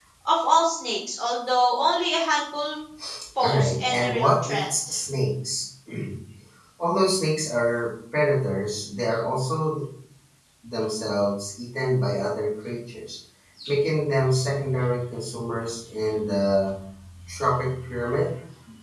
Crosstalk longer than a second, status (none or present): present